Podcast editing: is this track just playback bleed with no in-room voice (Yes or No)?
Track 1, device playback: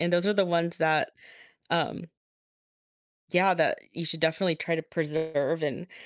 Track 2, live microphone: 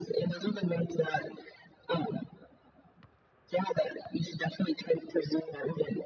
Yes